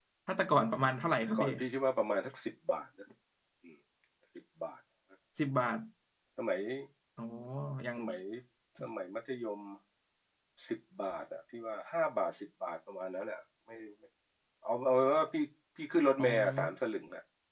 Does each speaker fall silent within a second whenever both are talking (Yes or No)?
Yes